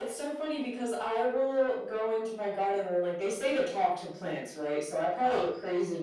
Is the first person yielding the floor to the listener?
No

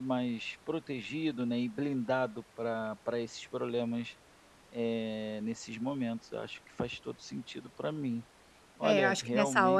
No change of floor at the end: No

